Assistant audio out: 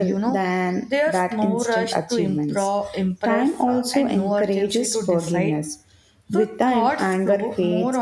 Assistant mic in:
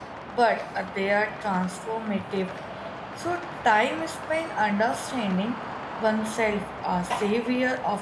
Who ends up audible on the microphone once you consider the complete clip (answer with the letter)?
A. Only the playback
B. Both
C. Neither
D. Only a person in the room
D